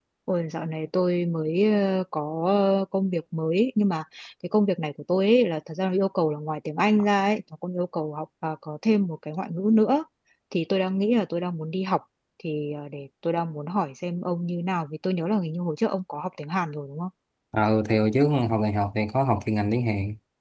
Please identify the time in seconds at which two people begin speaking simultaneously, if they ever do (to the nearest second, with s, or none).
none